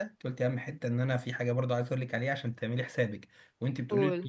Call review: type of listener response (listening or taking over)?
listening